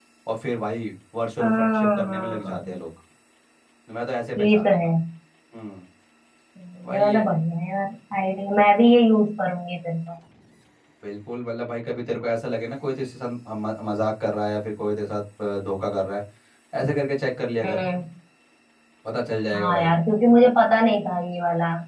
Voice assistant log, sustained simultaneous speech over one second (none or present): present